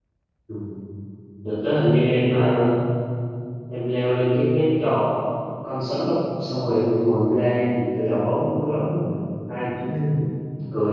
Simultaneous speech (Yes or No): No